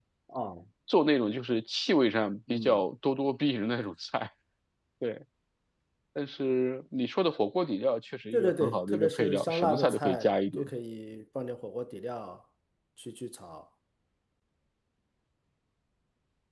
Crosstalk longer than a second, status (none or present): present